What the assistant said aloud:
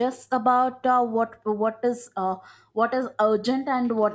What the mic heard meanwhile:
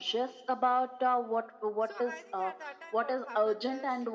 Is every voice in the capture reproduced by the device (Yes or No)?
No